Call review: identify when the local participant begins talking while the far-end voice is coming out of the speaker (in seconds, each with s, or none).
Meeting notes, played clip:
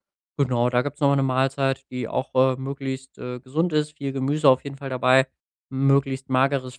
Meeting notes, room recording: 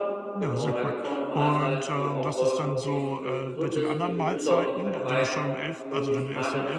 0.3 s